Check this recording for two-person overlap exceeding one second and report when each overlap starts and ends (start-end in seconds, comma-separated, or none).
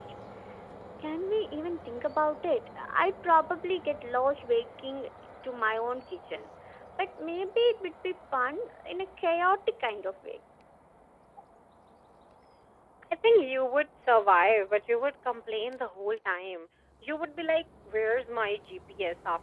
none